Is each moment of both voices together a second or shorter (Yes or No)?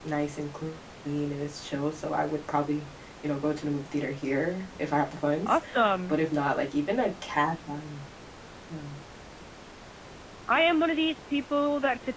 Yes